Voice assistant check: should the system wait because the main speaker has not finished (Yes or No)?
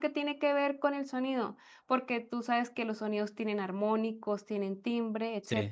No